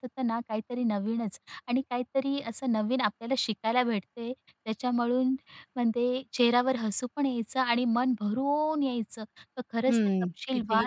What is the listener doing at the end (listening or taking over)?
taking over